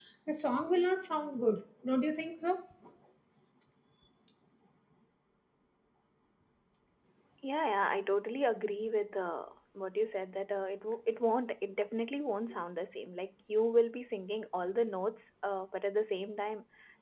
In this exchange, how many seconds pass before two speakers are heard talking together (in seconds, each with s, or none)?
none